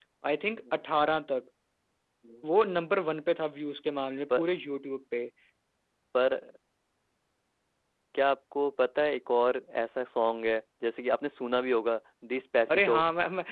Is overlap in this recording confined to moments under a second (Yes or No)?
Yes